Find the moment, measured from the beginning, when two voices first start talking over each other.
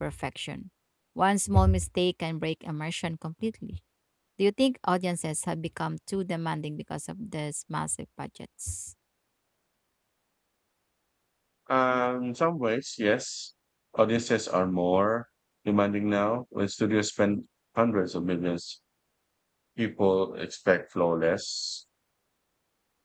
none

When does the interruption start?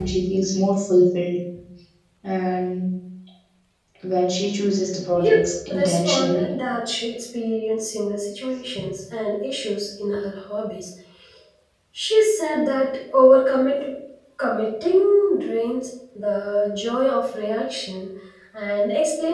5.2 s

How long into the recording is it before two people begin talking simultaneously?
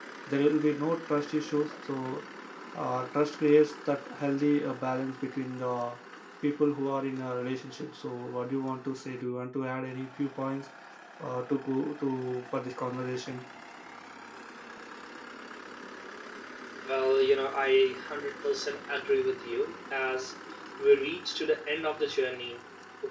none

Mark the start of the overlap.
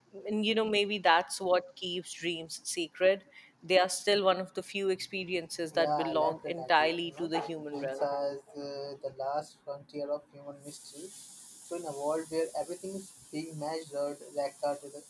5.7 s

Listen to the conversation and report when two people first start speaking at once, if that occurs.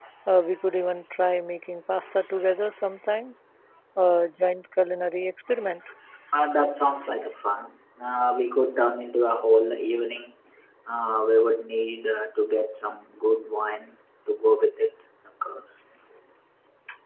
none

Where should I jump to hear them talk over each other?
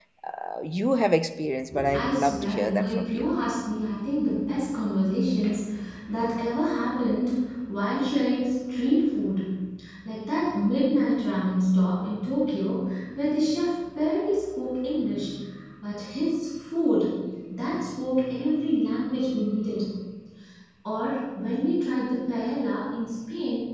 1.9 s

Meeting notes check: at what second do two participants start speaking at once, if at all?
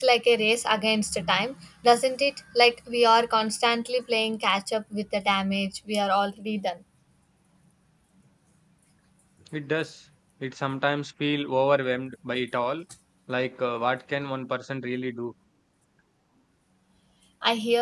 none

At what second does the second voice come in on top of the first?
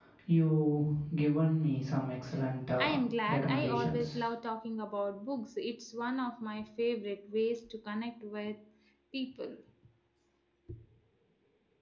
2.8 s

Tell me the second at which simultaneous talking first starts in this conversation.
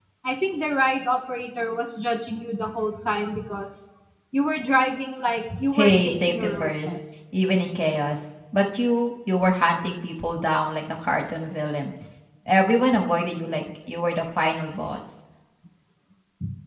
5.7 s

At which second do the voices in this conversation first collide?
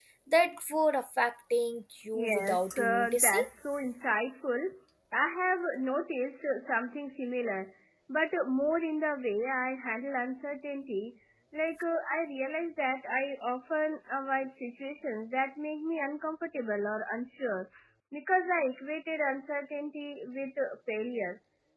2.1 s

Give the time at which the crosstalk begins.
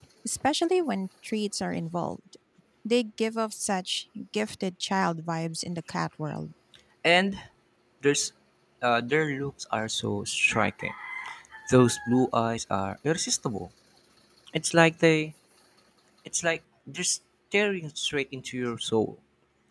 none

